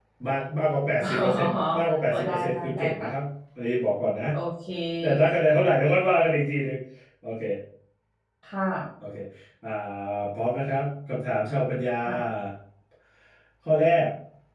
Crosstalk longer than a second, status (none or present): present